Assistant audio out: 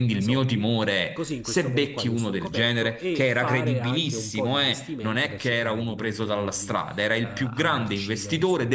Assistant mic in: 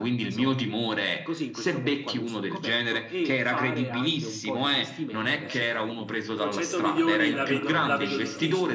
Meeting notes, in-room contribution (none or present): present